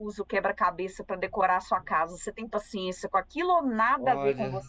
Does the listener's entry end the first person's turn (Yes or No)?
Yes